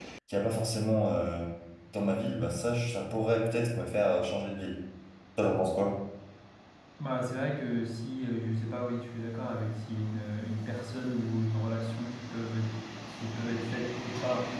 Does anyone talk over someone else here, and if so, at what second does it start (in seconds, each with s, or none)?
none